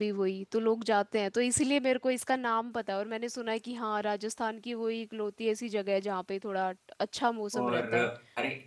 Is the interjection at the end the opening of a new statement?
Yes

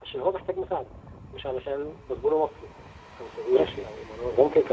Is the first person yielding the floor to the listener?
Yes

